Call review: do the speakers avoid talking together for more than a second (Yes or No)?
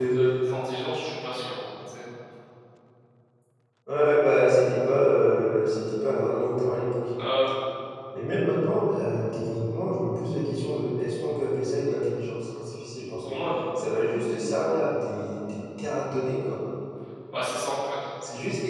Yes